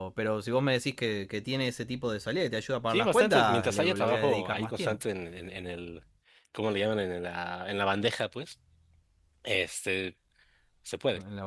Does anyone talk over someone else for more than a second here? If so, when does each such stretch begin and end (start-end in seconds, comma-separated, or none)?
2.9-5.0